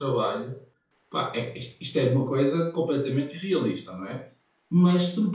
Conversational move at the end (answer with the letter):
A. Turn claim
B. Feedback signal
B